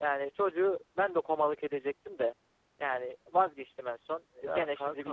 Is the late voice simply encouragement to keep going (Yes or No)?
Yes